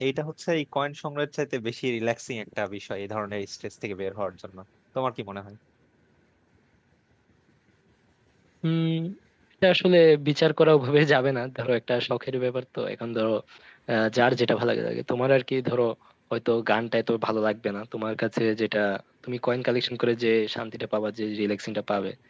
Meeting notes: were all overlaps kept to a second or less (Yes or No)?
Yes